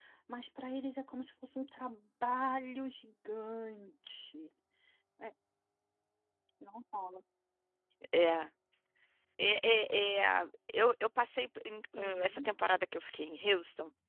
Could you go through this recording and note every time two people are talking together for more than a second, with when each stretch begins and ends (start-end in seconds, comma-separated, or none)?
none